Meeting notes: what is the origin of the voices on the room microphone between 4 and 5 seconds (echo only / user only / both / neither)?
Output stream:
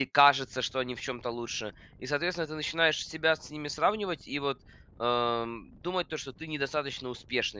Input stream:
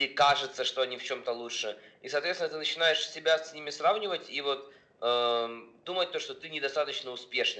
echo only